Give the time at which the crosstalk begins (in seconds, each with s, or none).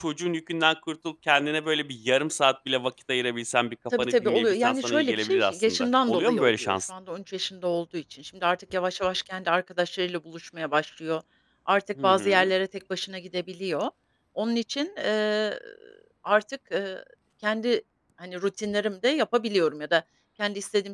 4.0 s